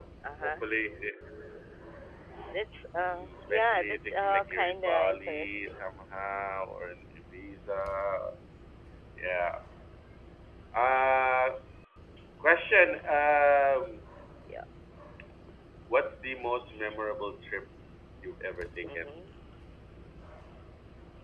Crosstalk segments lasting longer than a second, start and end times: 3.1-5.8

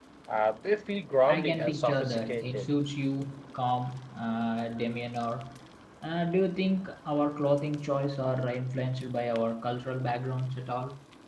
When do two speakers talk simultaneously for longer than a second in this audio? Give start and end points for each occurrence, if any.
1.3-2.7

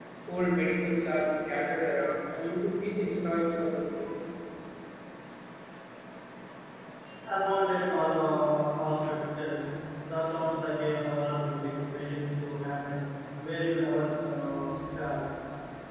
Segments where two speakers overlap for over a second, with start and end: none

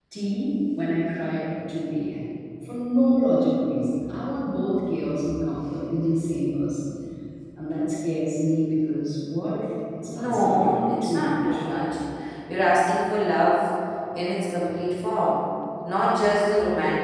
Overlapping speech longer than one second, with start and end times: 10.1-11.6

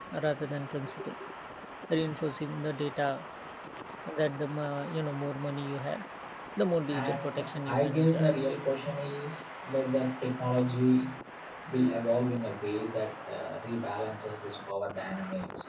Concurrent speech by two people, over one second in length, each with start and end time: 6.9-8.3

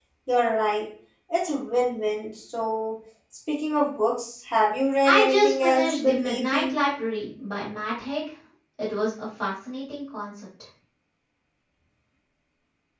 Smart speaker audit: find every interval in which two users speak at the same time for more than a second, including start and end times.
5.0-6.7

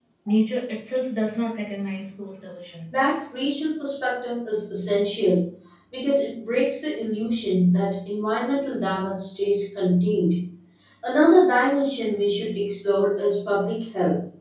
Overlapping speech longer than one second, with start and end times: none

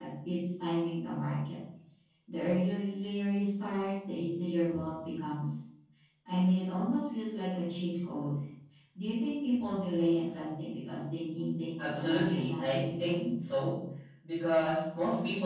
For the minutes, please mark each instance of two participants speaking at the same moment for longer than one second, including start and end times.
11.8-13.3

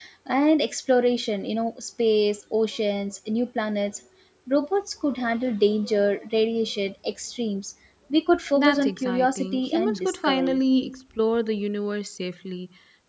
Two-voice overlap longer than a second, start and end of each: 8.5-10.6

